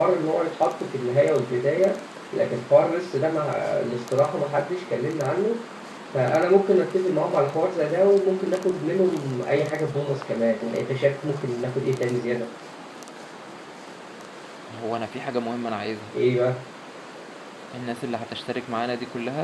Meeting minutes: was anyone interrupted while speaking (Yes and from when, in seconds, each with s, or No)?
No